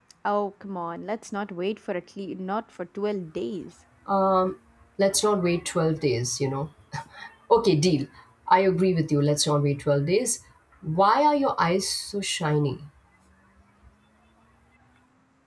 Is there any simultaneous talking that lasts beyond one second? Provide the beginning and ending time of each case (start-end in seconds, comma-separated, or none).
none